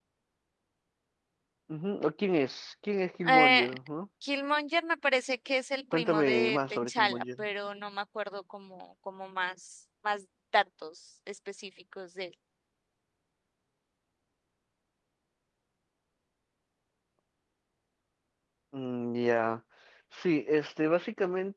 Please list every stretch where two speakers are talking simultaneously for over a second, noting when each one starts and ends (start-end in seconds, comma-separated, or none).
5.9-7.2